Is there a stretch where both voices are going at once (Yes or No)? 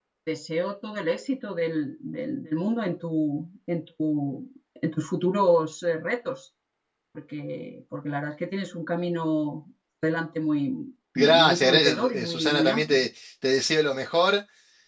Yes